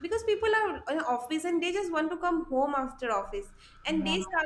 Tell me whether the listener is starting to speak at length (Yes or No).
No